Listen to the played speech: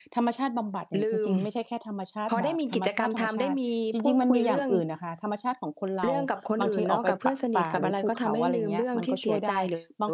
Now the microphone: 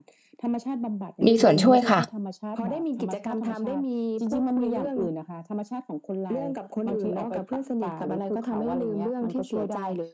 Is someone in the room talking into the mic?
Yes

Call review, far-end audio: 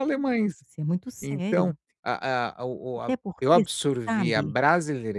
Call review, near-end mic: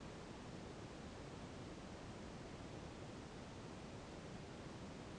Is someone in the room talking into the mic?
No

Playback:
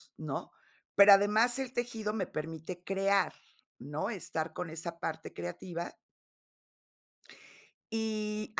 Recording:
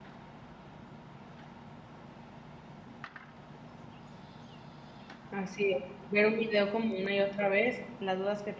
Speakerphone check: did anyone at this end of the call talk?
Yes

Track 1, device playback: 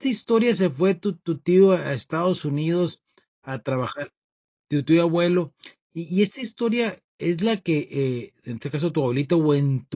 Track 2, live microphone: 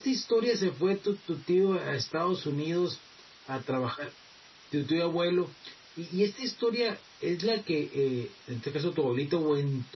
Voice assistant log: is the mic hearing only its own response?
Yes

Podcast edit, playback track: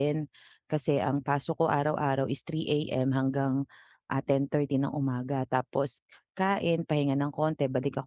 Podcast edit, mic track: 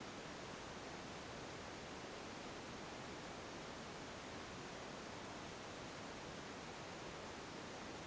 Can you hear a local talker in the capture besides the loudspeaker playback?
No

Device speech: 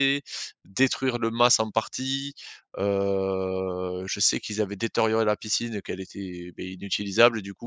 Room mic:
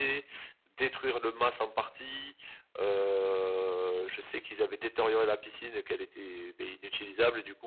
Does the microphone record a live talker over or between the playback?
No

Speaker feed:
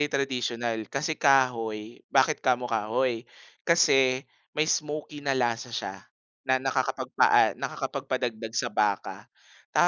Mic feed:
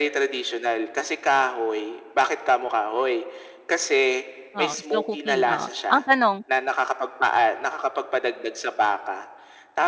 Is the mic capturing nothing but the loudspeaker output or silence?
No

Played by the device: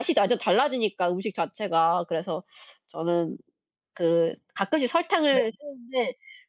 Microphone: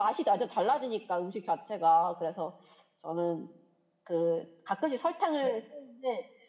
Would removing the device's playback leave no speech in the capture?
Yes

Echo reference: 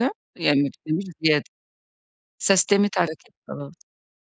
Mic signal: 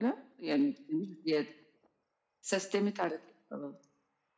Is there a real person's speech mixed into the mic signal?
No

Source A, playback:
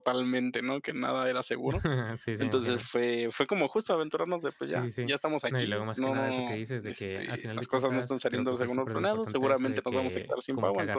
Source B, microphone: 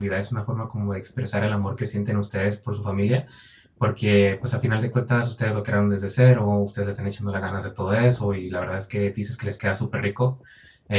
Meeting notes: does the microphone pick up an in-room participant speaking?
Yes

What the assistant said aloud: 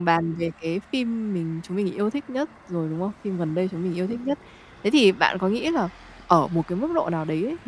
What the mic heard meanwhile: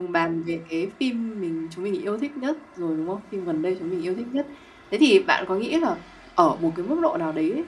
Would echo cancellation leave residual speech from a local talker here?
No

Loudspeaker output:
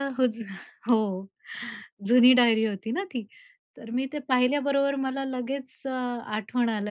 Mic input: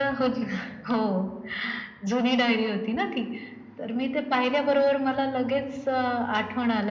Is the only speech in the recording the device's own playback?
Yes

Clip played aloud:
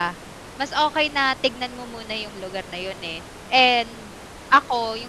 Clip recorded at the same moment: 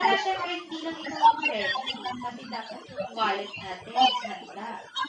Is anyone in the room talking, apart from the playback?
Yes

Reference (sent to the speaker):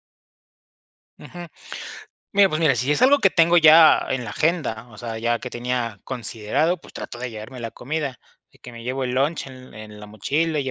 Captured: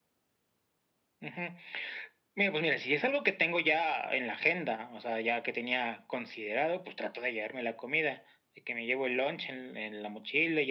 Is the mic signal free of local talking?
Yes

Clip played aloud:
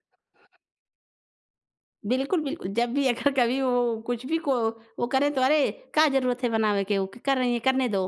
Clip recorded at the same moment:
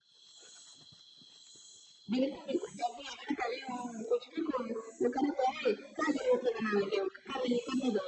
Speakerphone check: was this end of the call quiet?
Yes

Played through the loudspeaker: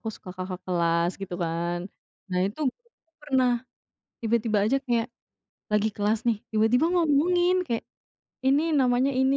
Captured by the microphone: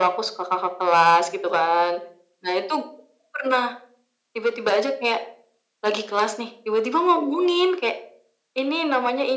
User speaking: No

